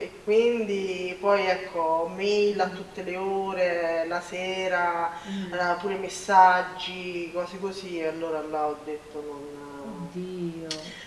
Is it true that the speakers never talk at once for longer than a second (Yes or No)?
Yes